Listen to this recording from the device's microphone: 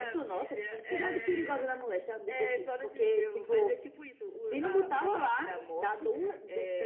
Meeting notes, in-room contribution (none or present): none